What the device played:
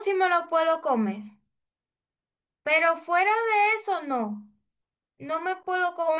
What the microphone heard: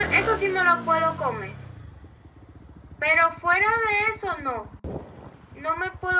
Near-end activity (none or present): none